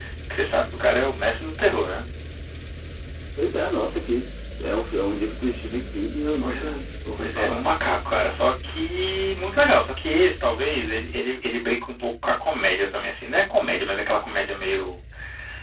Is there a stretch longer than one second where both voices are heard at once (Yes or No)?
No